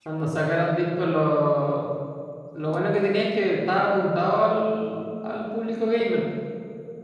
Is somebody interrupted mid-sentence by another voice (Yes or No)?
No